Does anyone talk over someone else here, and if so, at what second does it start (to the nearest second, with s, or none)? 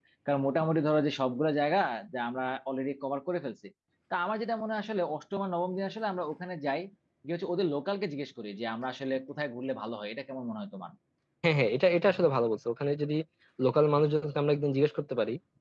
none